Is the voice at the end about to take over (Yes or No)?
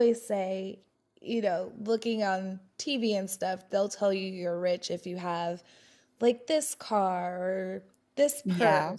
No